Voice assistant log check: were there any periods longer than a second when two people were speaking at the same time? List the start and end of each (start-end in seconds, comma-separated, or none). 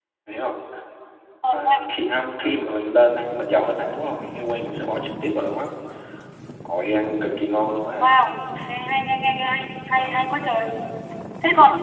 none